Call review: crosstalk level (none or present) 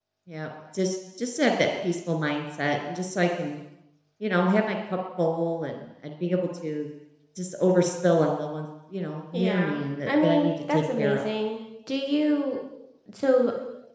present